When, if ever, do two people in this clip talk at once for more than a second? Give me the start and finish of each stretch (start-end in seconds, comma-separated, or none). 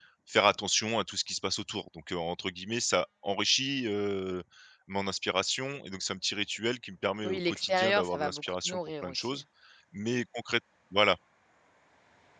7.2-9.4